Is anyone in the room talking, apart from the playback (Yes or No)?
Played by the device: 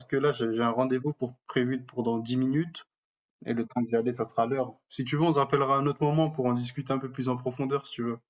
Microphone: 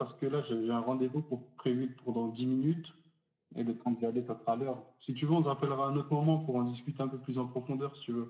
No